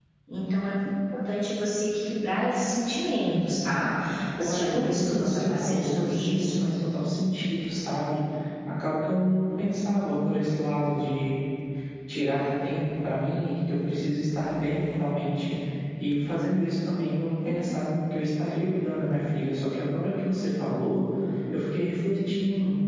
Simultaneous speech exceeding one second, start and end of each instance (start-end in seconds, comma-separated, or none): 4.4-6.6